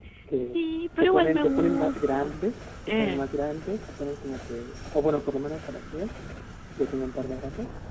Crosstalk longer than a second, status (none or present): present